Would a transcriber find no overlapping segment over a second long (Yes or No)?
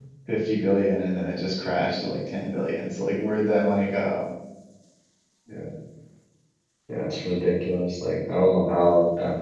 Yes